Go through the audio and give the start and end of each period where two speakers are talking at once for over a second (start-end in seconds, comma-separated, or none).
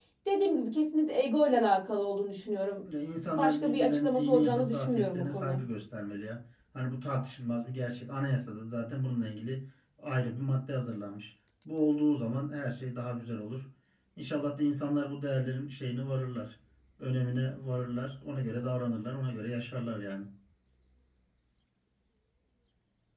3.4-5.6